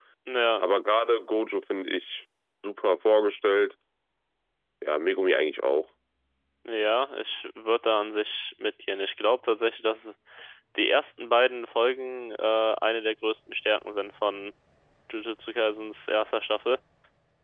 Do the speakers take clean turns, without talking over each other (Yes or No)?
Yes